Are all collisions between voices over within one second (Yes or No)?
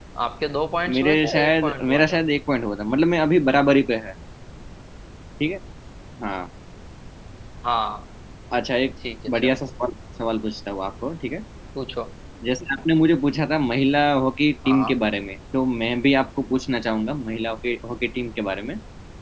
No